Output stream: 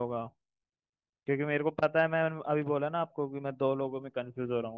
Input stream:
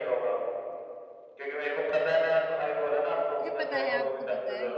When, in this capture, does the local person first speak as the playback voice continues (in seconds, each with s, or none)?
3.4 s